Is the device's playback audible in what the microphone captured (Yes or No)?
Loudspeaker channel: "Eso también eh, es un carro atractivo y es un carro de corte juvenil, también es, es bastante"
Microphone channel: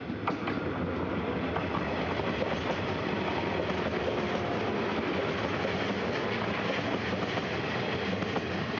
No